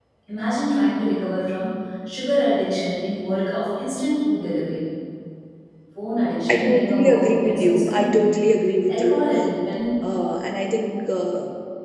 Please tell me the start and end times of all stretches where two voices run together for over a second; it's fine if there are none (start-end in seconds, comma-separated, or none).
6.5-8.2